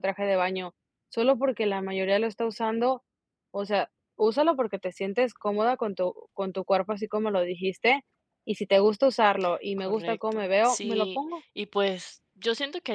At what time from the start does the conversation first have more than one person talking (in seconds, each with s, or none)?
9.8 s